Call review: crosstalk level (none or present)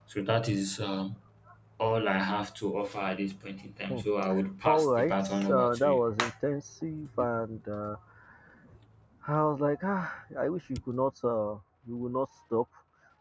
present